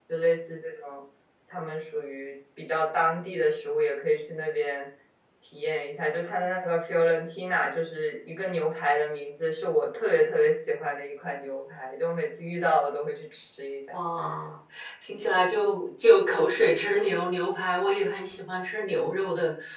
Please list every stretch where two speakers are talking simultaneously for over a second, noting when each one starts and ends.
none

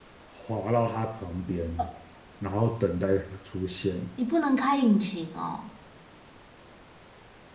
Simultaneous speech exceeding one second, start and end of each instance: none

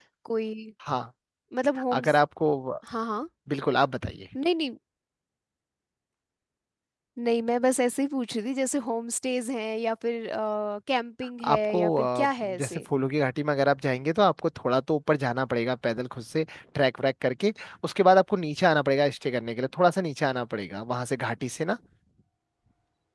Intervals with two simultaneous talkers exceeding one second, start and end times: 11.4-12.8

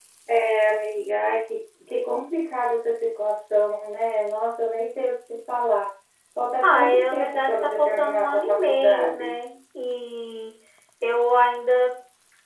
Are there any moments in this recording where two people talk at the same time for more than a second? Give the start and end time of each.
6.6-9.3

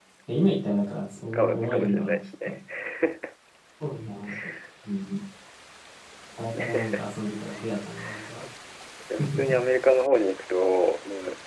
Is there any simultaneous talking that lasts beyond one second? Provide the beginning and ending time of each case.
1.3-2.5

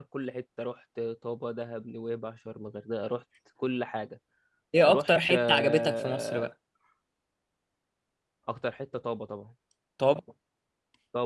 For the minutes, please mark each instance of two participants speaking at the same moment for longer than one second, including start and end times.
4.9-6.5

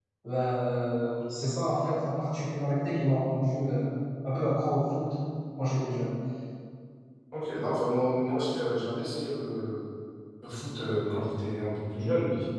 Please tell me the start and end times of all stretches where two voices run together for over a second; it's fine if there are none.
none

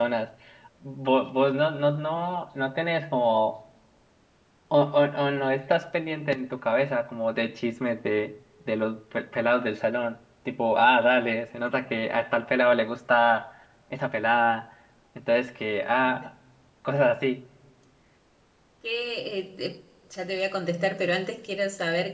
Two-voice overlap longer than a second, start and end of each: none

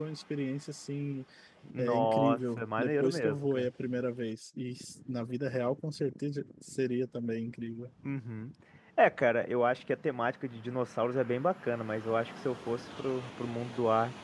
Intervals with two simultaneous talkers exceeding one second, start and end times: 1.8-3.7

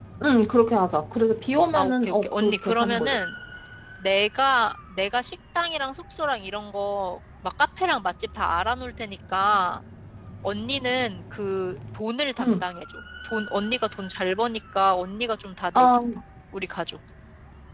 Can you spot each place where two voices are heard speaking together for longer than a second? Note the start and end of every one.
1.8-3.2

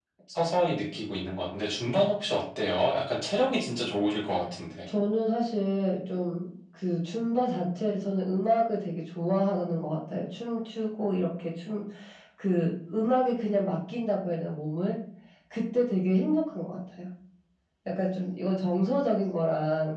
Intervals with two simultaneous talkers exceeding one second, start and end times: none

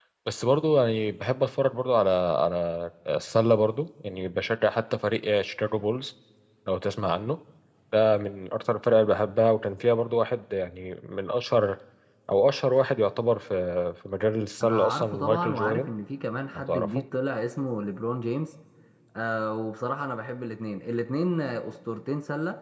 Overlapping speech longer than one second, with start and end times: 14.6-15.9

